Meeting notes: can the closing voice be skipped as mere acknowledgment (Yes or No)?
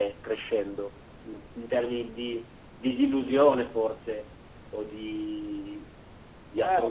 No